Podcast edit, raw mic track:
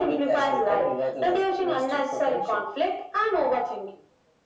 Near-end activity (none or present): none